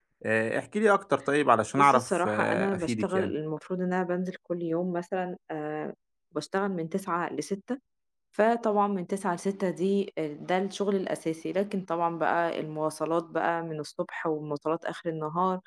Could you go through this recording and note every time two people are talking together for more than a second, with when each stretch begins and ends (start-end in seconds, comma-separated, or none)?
1.7-3.3